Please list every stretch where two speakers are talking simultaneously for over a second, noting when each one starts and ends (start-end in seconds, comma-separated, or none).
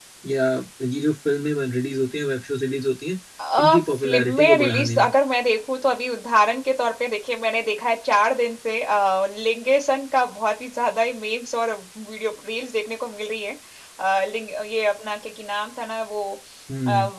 3.6-5.1